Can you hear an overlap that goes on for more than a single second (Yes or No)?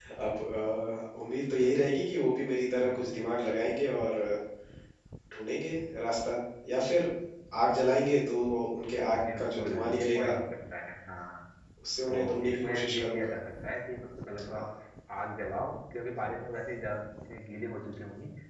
Yes